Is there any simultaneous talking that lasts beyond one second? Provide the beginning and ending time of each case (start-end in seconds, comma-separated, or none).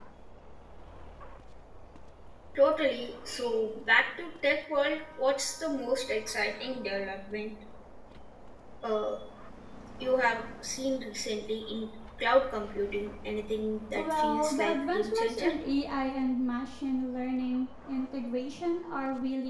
13.9-15.5